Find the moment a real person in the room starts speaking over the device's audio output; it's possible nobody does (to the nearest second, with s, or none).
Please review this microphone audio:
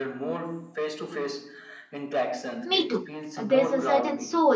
3 s